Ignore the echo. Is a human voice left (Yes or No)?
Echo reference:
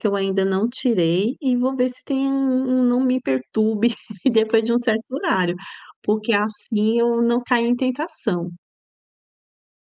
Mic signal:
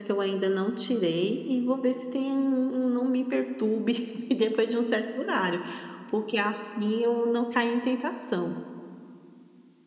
No